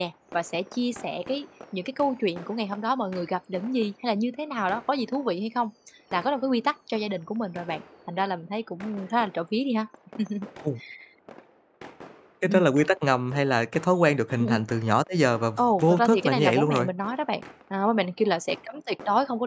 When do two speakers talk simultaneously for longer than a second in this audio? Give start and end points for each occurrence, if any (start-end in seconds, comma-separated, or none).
15.6-16.9